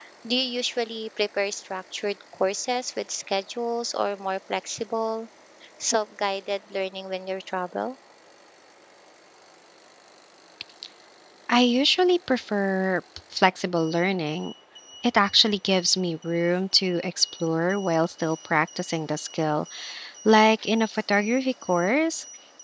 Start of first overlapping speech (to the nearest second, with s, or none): none